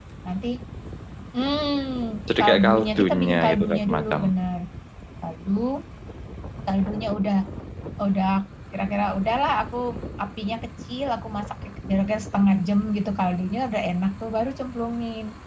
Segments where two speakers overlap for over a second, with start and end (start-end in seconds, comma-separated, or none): 2.4-4.2